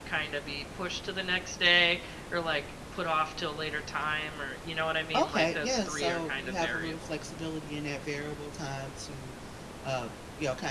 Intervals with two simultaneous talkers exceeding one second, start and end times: 5.2-7.2

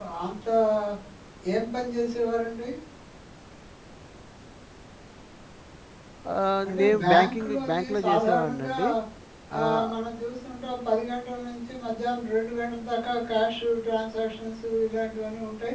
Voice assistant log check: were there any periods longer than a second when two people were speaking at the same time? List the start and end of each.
6.7-8.7

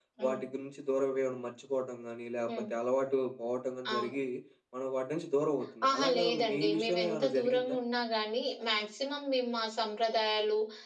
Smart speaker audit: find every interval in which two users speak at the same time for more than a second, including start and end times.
5.9-7.8

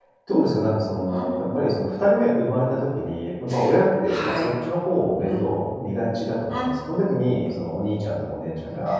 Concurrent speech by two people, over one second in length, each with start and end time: none

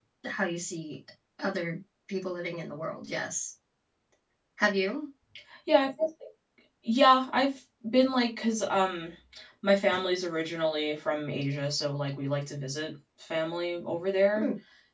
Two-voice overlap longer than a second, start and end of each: none

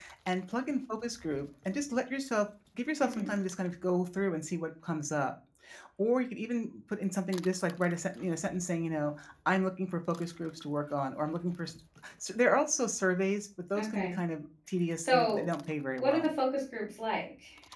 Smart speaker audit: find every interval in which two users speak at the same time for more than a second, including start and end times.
none

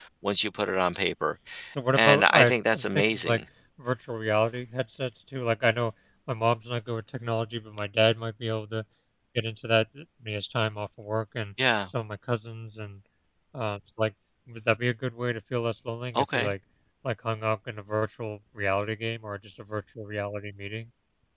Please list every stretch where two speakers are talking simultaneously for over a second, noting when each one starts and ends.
2.0-3.4

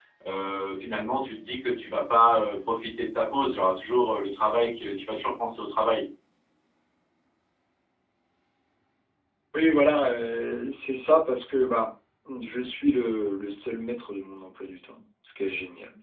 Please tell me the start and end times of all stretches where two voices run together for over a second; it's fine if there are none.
none

